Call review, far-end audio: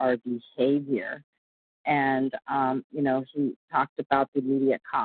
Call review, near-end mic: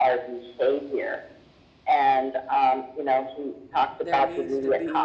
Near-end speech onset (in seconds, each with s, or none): 4.0 s